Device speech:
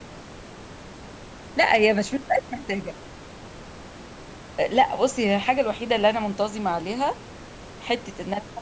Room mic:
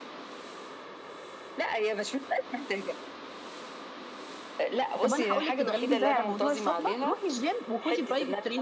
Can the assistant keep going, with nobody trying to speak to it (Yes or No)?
No